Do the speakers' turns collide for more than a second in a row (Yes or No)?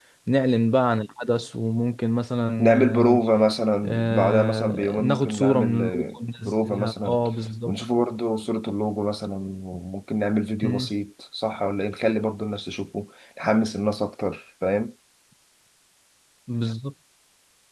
Yes